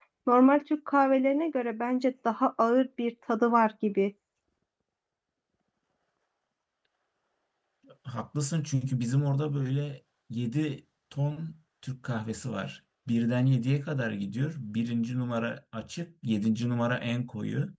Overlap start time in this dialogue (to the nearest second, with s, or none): none